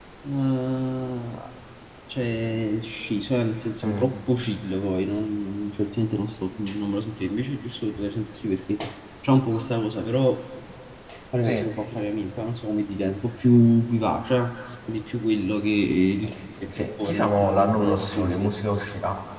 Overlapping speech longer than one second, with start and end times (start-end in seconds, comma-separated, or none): 16.6-18.6